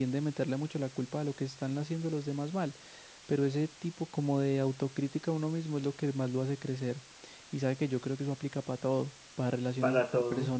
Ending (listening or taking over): listening